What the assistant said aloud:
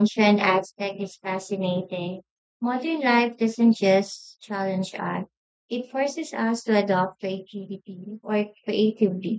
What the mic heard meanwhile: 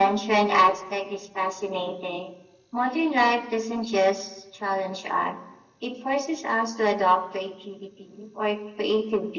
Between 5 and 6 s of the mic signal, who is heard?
echo only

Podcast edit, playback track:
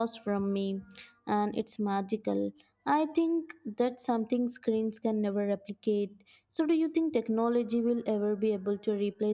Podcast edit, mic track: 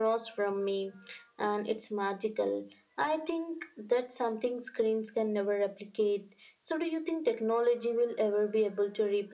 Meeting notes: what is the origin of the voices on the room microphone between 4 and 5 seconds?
echo only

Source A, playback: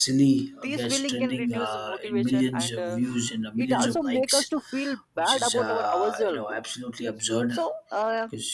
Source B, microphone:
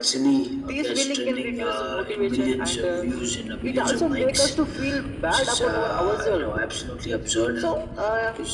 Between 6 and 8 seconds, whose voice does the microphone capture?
echo only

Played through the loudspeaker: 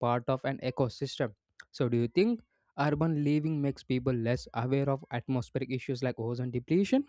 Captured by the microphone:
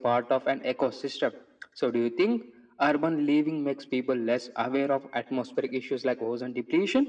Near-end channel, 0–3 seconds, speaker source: echo only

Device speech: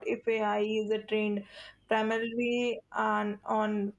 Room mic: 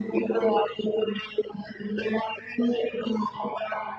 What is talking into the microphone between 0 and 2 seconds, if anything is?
echo only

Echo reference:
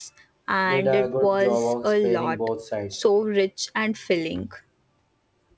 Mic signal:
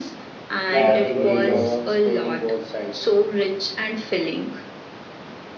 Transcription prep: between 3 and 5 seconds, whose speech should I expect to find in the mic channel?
echo only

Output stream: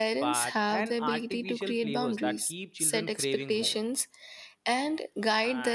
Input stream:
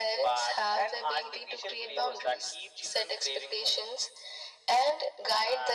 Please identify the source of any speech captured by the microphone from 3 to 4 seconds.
echo only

